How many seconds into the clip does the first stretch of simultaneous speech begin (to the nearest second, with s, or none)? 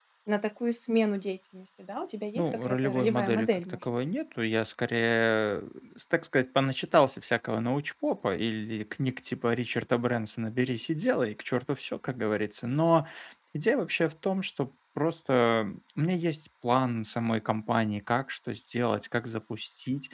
2 s